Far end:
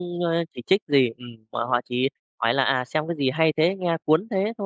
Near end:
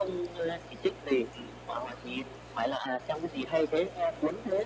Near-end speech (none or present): none